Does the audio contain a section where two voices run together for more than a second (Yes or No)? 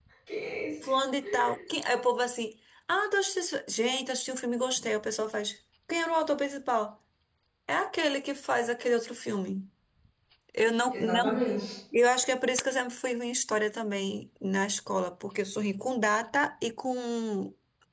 No